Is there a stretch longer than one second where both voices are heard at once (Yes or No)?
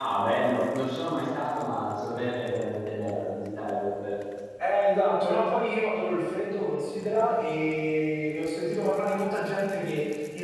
No